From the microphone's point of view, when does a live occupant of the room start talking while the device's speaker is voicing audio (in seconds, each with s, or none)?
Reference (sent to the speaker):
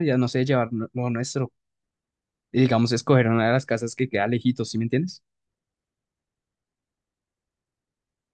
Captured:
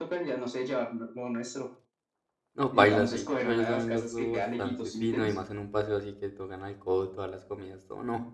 2.5 s